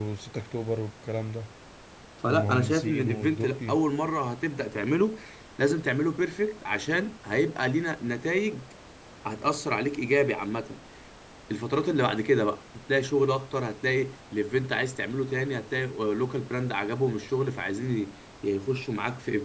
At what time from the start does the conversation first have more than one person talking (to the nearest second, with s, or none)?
2 s